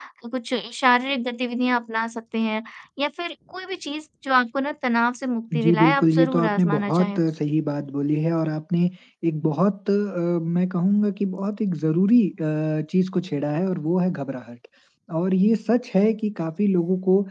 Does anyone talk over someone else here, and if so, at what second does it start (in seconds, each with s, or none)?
5.5 s